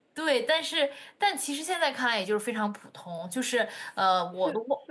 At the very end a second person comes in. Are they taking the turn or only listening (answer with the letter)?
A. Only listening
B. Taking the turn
B